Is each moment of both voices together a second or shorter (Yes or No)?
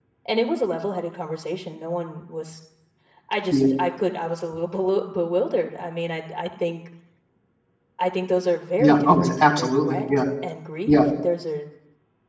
No